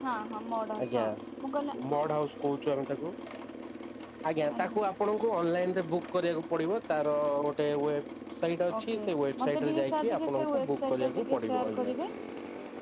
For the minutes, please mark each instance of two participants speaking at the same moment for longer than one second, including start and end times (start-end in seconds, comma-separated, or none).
9.4-11.9